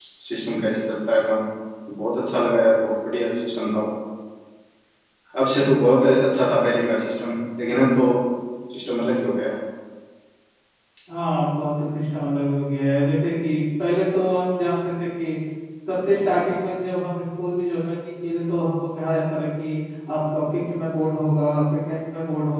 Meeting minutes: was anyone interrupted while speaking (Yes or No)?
No